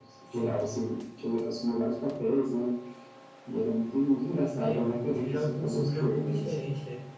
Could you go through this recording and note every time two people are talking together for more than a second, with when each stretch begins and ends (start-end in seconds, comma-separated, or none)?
4.6-6.5